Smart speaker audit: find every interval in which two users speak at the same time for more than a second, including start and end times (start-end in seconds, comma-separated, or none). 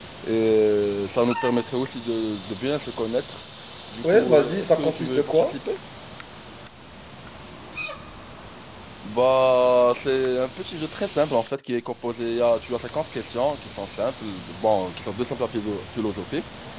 4.1-5.6